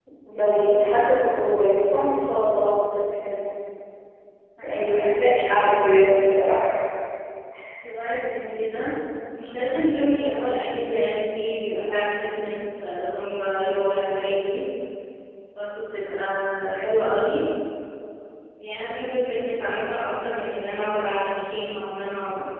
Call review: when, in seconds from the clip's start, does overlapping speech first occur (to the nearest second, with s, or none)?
5 s